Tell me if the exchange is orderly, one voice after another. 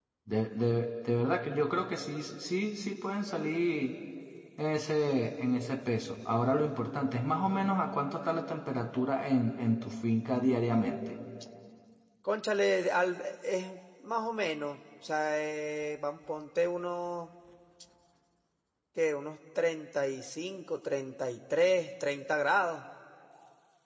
Yes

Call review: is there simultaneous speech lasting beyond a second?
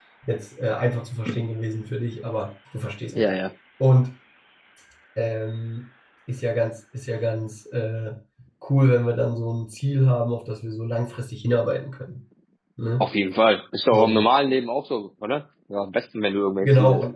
No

